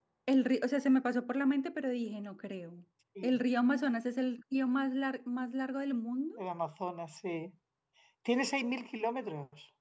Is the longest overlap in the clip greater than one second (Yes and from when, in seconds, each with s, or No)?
No